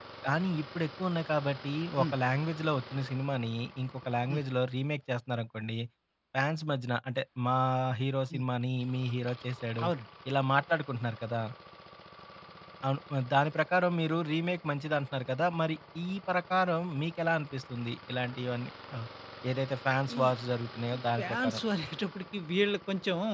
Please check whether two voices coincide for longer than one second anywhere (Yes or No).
No